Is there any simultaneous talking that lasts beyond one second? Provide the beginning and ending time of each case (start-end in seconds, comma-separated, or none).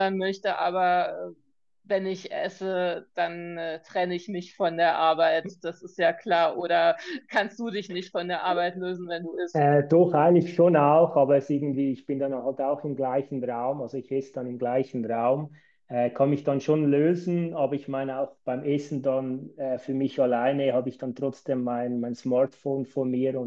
none